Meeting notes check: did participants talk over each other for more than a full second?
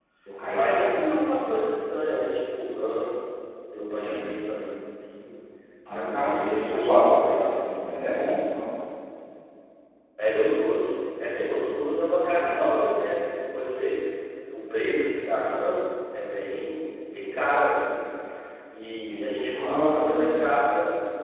Yes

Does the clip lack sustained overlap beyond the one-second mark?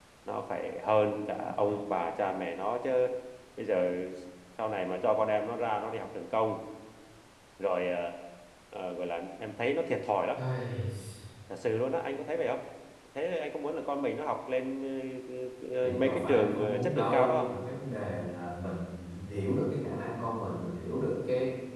No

